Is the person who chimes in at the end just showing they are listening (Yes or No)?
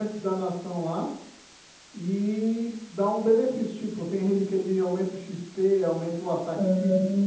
No